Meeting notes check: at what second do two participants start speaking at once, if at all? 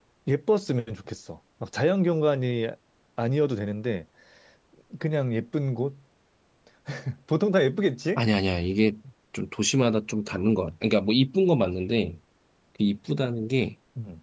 none

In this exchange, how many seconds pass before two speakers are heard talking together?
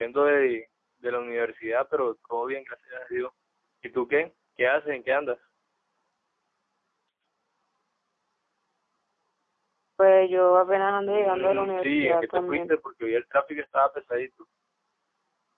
11.0 s

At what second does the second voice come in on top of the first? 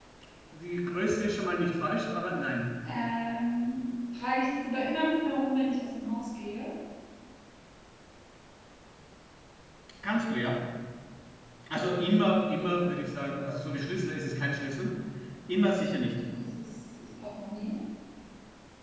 none

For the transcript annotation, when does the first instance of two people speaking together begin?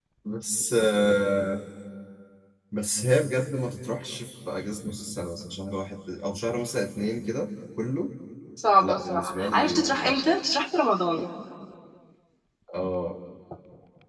8.8 s

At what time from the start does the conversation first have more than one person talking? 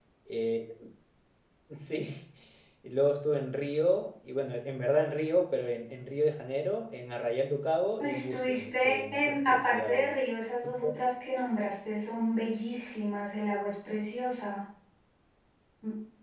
8.0 s

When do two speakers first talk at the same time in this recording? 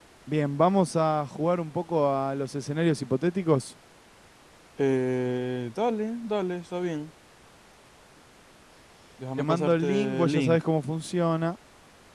9.4 s

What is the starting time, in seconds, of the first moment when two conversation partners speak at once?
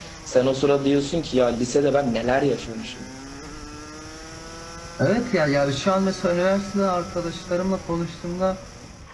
none

